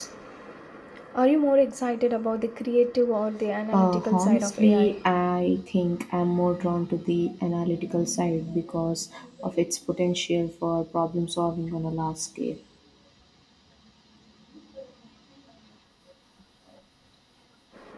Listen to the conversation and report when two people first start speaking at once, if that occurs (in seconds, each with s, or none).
3.7 s